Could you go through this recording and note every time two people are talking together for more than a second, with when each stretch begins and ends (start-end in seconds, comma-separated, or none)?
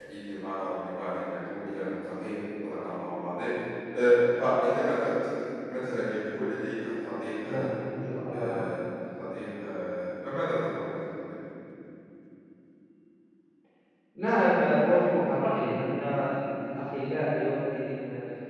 none